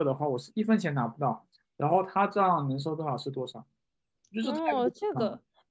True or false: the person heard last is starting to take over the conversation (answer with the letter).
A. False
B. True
B